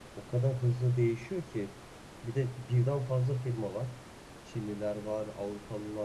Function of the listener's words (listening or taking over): listening